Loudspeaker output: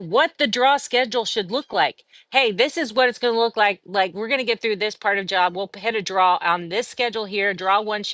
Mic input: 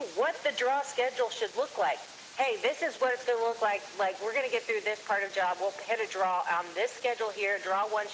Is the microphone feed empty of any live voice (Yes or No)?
Yes